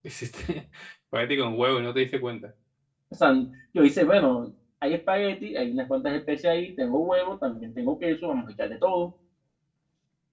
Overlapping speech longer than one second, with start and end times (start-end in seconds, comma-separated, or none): none